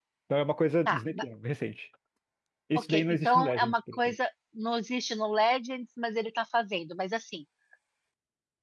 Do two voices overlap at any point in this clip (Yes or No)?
Yes